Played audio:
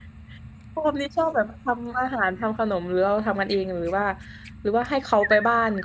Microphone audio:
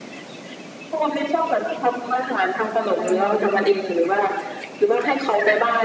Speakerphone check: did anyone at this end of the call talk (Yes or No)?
Yes